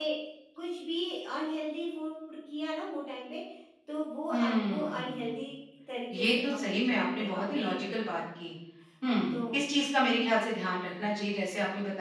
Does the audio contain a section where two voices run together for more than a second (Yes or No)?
Yes